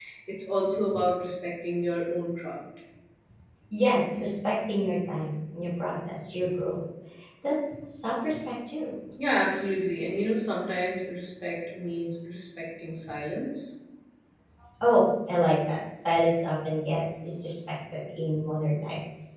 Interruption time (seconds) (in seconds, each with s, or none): none